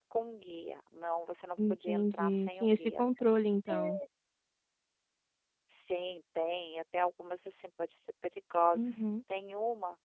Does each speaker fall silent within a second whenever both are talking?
No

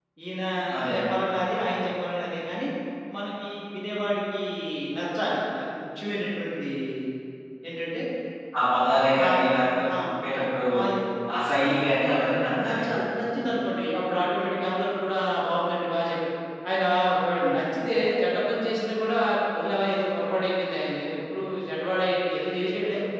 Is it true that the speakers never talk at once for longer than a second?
Yes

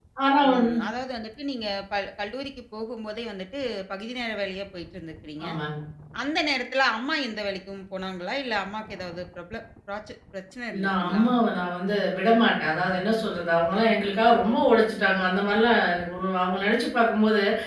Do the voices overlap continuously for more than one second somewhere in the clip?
No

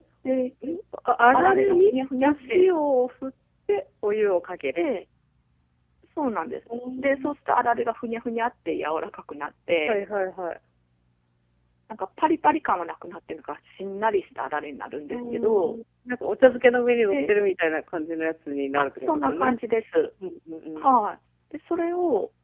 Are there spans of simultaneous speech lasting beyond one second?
Yes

